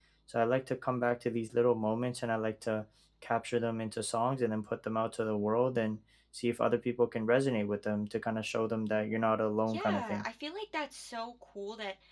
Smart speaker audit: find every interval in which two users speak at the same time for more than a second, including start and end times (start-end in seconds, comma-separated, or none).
none